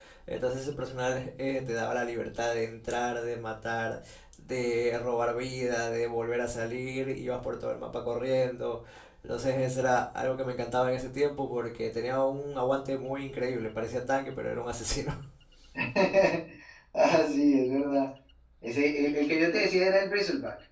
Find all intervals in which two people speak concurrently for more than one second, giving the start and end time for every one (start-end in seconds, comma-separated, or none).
none